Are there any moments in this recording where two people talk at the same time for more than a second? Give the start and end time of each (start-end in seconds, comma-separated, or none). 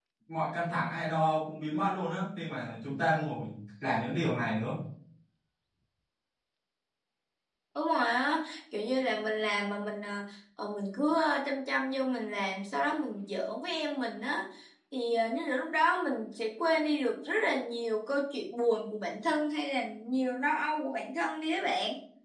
none